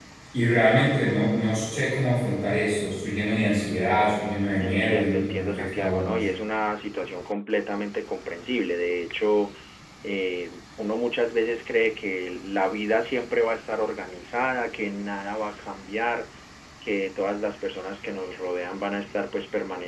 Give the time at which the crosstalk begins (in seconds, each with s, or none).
4.6 s